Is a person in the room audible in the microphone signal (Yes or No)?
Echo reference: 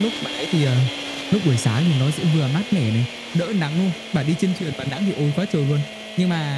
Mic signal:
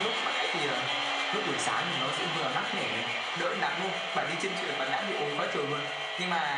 No